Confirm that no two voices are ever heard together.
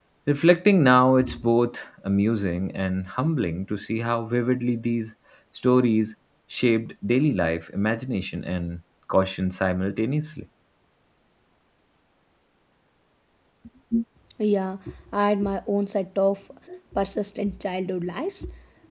Yes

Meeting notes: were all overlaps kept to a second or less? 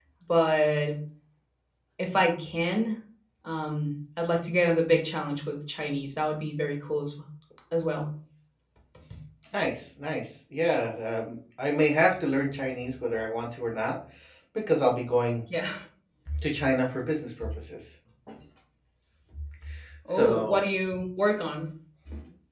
Yes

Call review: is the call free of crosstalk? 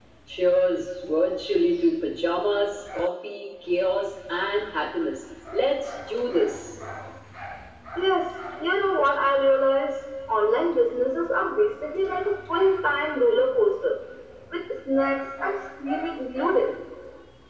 Yes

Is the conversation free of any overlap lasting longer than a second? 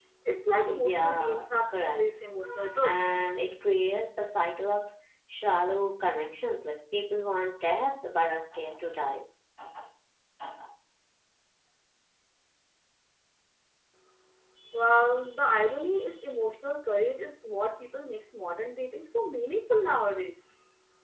No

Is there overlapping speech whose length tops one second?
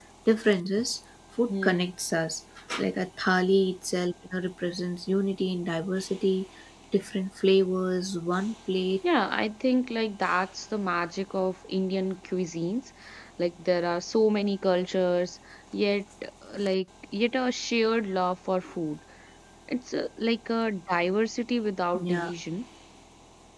No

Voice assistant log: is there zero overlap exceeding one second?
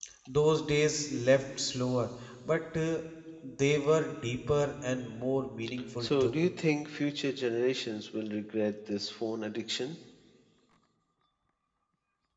Yes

